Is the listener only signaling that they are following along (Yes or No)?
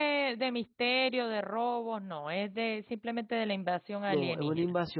No